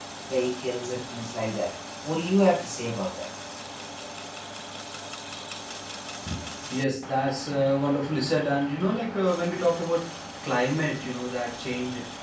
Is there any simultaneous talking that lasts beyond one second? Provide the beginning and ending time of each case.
none

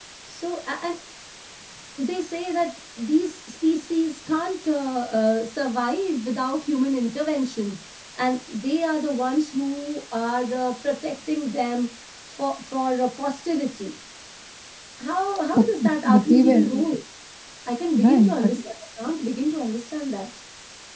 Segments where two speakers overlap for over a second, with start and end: 15.5-16.8

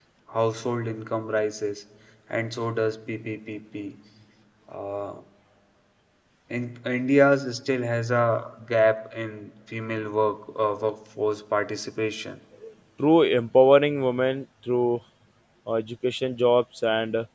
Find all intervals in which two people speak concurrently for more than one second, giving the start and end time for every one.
none

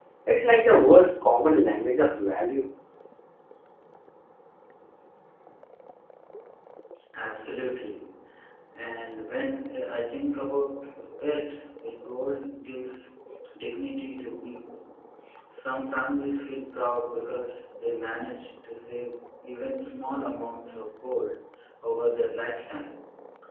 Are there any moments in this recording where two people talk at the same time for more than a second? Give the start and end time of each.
none

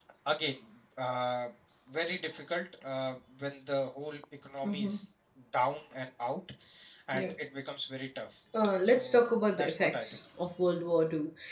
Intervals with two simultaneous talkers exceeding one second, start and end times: 8.8-10.2

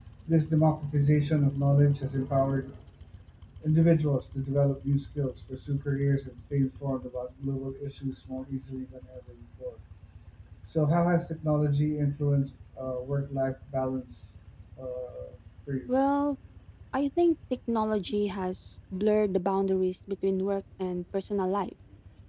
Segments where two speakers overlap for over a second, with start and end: none

